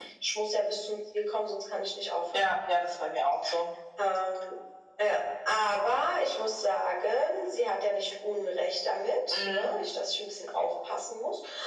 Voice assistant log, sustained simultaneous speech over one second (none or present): none